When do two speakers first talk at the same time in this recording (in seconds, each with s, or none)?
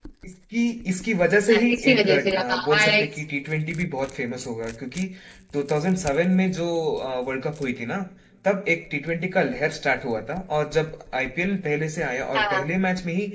1.5 s